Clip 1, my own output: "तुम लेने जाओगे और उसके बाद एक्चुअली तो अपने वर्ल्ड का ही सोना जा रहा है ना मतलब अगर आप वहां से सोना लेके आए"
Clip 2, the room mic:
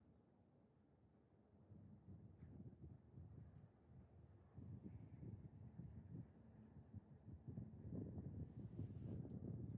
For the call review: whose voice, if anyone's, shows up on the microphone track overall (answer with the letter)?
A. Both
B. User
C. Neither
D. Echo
C